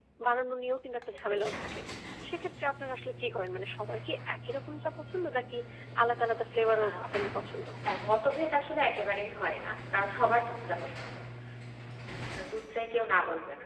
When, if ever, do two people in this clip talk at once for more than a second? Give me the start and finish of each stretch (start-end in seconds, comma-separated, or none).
none